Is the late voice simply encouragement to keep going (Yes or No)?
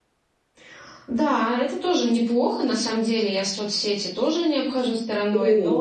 No